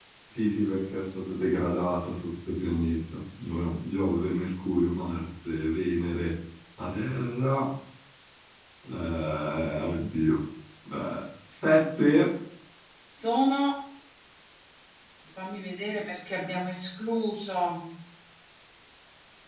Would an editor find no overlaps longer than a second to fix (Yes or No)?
Yes